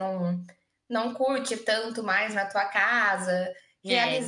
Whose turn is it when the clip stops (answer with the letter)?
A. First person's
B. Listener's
A